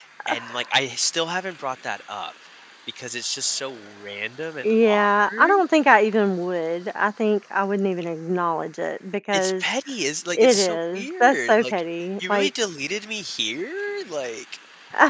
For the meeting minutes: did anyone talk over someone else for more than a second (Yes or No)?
Yes